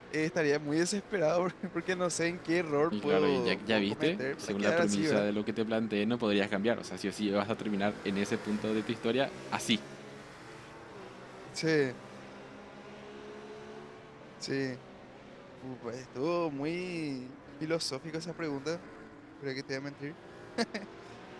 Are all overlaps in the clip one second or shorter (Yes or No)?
No